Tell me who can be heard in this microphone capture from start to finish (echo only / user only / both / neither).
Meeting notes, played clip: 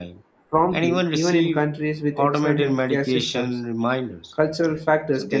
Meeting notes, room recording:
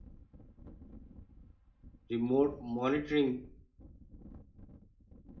user only